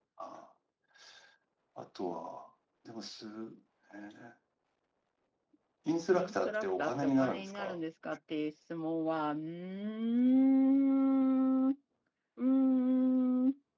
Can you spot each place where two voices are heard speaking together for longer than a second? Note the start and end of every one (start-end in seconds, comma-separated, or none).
6.1-7.8